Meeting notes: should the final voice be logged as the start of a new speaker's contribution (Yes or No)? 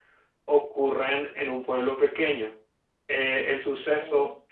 No